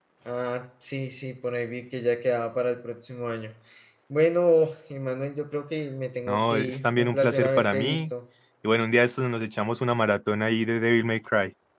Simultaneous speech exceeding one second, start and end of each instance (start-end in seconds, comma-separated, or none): 6.3-8.0